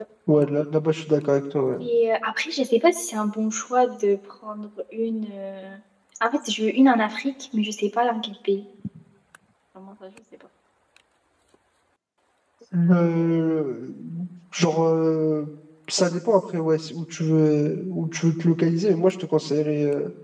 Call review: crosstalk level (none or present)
none